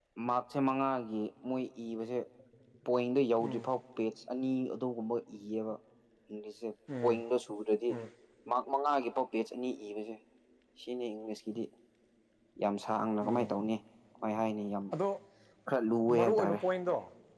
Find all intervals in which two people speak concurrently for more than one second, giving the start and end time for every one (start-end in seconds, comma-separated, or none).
none